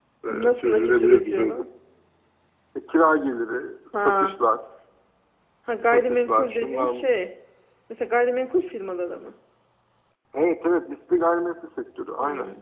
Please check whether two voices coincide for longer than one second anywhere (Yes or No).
Yes